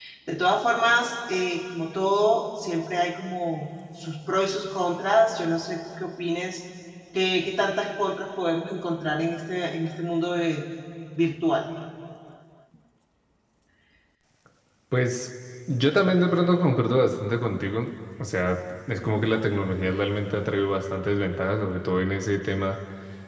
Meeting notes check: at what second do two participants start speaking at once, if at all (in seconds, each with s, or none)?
none